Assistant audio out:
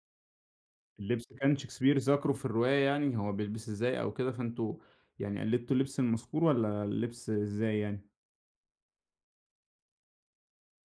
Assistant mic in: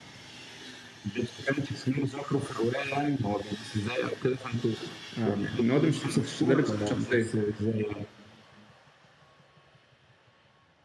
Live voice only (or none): آه. إن هو ده مش لبسك الش ده لبسك الشخصية.